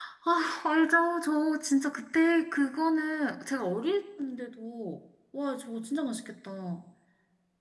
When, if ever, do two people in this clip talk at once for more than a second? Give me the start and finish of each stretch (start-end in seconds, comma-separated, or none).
none